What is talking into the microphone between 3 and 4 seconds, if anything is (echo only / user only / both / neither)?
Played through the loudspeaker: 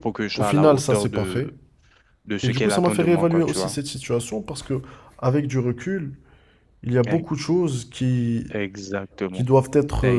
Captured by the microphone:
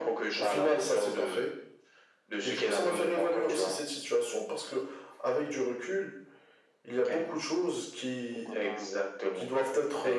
echo only